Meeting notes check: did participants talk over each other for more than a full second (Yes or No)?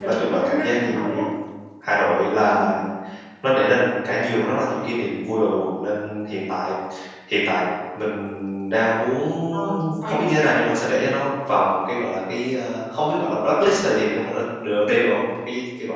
Yes